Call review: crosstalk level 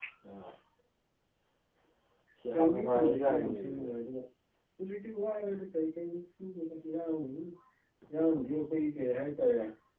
present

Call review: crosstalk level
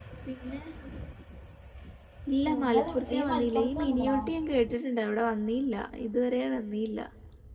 present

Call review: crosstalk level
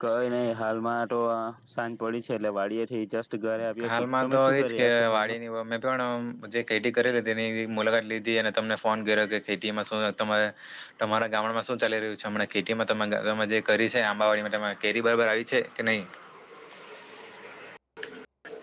present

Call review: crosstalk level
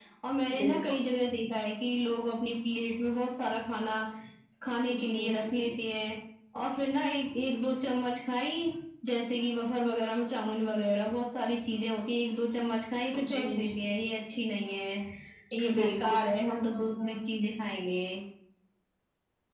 present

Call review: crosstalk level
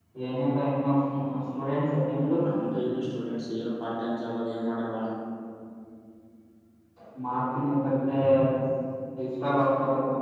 none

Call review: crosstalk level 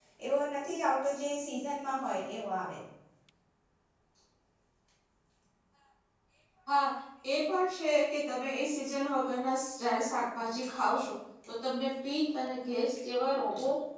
none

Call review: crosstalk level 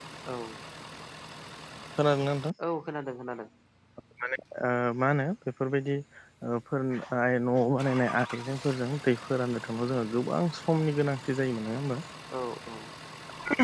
none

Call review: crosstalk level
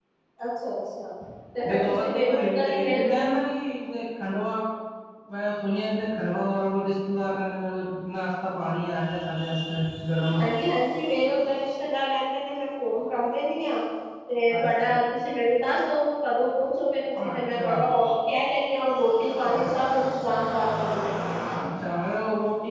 present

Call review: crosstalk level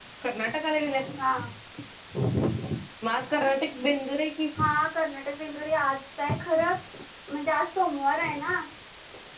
none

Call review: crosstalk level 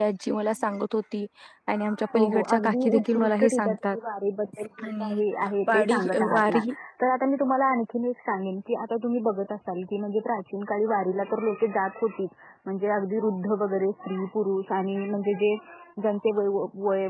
present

